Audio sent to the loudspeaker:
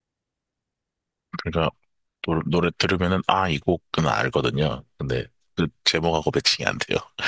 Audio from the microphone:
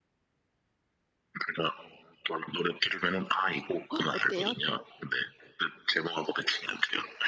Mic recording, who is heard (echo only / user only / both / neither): both